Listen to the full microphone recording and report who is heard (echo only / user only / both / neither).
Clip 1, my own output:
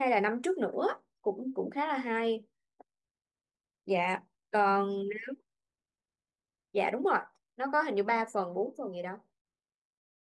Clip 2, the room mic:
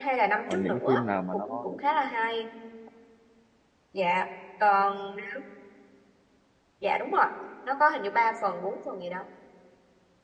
both